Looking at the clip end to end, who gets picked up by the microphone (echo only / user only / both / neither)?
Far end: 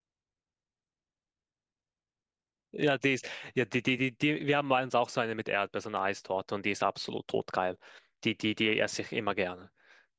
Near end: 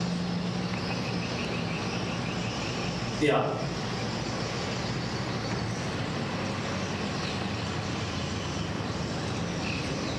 user only